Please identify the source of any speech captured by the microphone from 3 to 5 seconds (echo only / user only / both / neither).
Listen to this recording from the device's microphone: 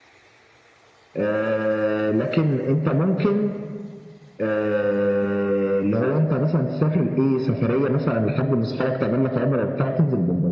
echo only